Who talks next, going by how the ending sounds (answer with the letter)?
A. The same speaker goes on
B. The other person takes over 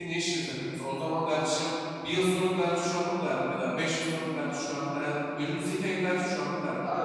B